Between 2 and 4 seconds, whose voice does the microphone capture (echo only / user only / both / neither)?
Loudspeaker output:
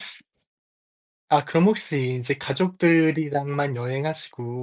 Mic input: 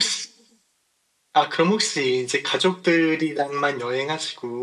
echo only